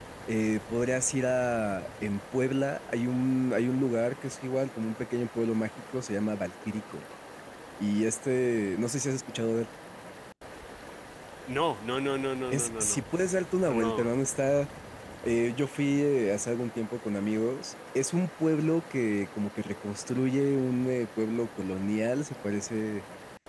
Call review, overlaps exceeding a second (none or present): none